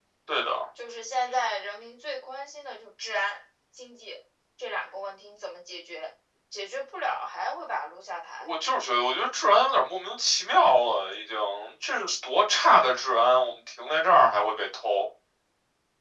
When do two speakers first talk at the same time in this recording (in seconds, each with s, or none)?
none